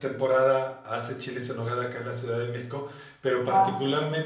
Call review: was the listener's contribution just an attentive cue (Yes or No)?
Yes